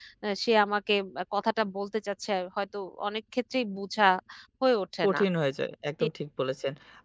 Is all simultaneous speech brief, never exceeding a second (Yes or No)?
Yes